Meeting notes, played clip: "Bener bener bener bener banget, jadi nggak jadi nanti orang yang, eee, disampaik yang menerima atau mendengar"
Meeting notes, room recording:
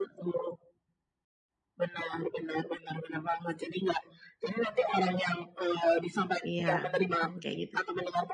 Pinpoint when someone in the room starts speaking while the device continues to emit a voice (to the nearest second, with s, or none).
6 s